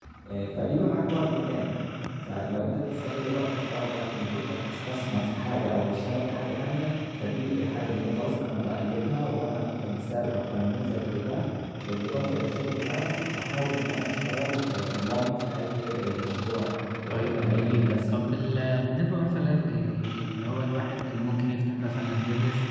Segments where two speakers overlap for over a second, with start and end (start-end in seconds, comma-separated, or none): 17.1-18.4